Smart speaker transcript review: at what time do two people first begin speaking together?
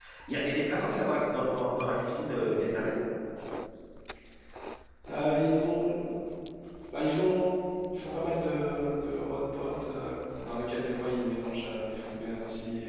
none

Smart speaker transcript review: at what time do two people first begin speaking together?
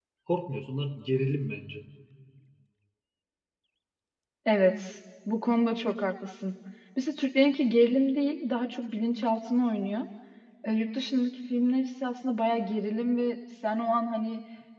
none

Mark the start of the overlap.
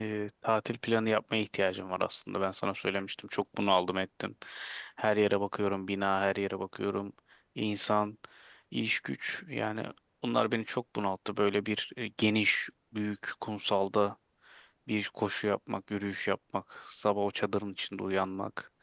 none

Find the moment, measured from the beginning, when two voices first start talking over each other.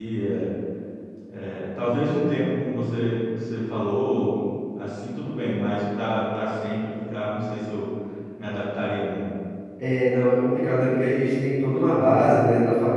none

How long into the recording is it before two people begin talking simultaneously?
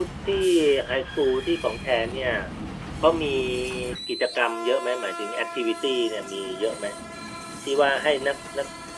none

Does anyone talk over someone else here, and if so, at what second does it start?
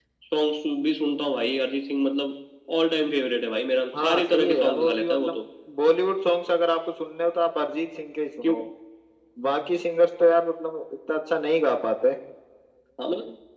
3.9 s

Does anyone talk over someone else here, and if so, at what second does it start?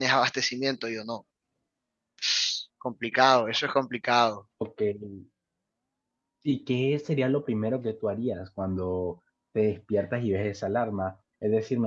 none

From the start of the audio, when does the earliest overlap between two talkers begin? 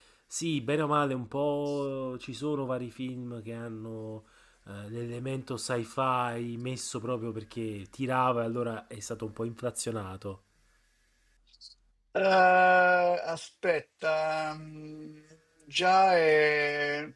none

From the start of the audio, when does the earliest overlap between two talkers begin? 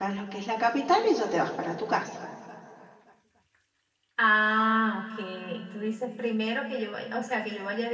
none

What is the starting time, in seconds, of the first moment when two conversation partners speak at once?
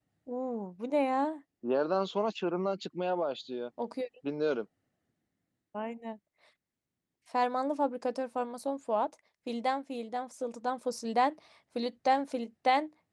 none

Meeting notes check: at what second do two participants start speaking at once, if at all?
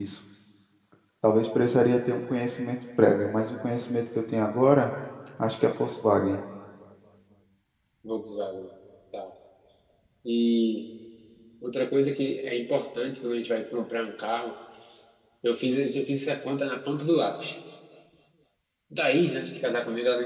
none

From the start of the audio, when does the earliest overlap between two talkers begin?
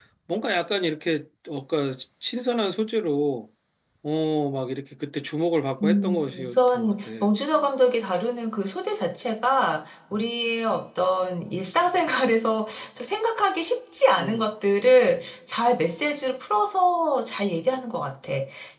5.8 s

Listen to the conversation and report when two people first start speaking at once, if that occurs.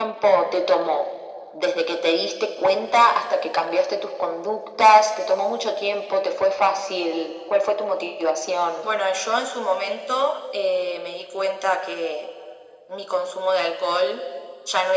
none

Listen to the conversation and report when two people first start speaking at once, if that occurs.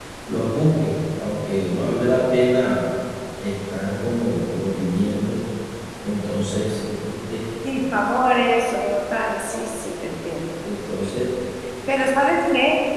none

